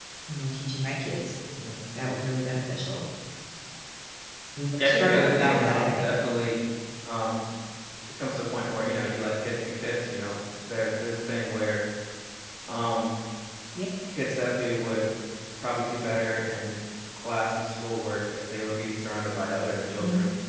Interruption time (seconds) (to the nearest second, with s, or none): 5 s